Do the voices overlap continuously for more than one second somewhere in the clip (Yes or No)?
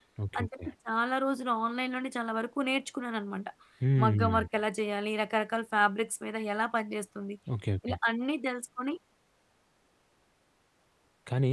No